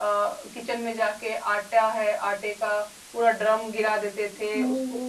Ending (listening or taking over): listening